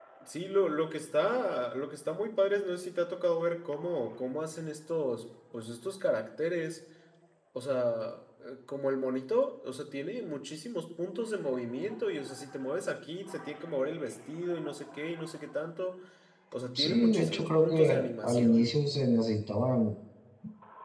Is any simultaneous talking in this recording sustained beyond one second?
Yes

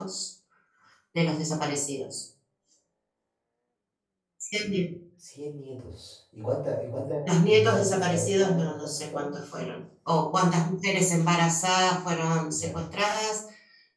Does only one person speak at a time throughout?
No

